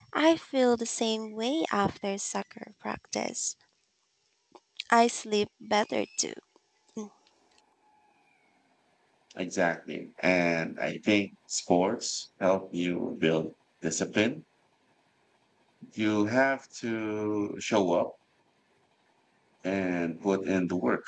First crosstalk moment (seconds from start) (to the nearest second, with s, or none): none